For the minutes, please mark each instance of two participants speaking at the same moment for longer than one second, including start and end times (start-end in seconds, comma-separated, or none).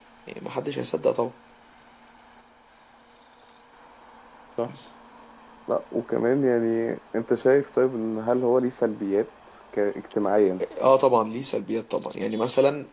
none